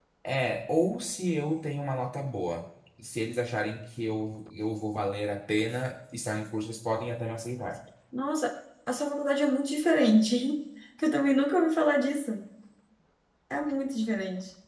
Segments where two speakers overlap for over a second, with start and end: none

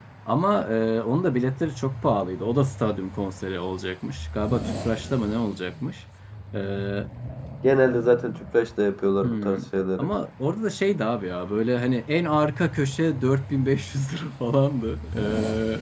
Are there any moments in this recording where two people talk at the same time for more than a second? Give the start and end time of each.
none

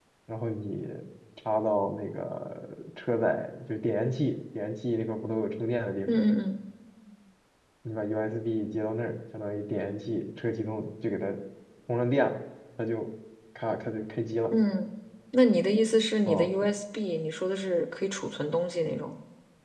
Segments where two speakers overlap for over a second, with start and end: none

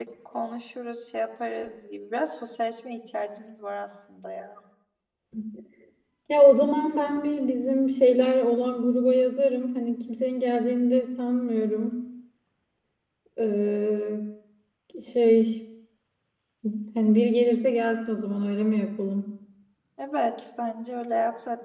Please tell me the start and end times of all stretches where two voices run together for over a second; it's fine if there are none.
none

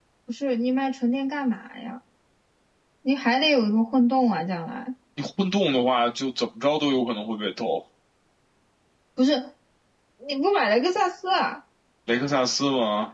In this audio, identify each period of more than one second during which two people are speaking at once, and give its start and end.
none

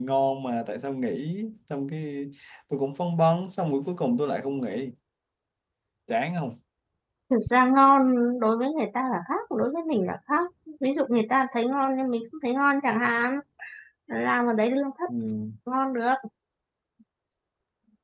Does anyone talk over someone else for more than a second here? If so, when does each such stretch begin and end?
none

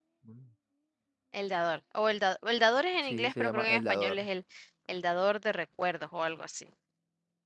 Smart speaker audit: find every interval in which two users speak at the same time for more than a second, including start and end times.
3.0-4.3

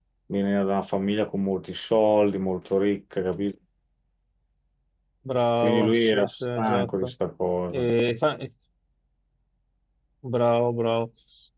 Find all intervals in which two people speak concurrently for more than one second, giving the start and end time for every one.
5.6-7.1

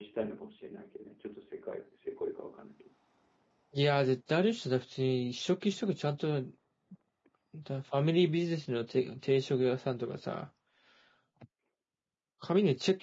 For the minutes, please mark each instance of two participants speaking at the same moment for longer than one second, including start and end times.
none

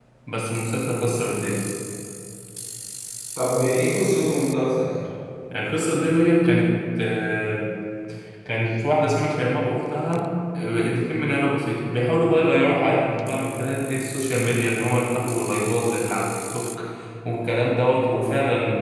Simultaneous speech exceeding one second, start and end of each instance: none

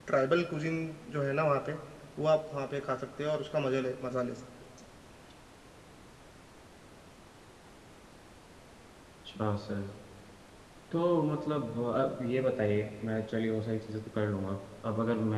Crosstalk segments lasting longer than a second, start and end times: none

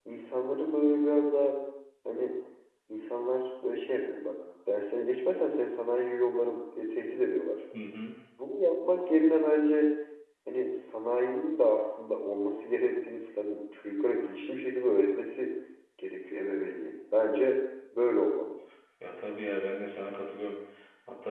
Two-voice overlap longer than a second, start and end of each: none

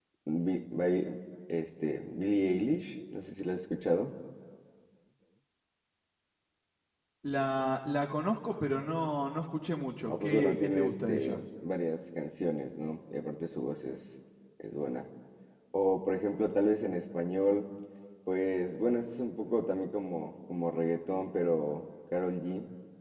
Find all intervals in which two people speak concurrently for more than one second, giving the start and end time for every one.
10.1-11.4

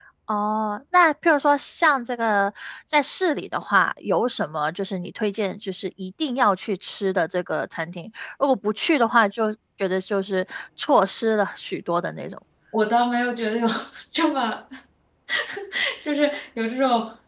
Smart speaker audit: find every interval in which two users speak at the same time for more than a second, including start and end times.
none

